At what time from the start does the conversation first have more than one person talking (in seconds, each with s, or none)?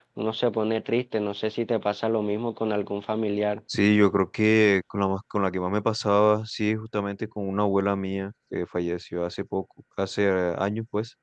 none